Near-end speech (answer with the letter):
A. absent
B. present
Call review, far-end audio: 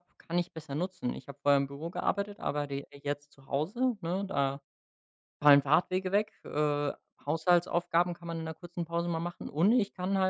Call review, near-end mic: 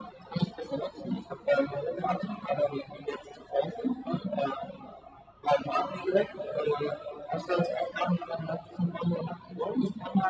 A